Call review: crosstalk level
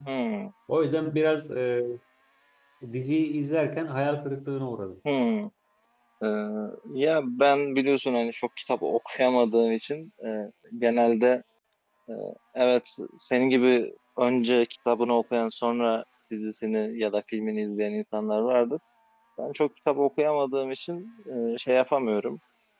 none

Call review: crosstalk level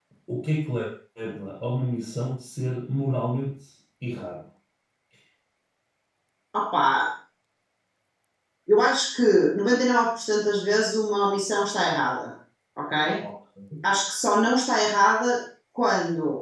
none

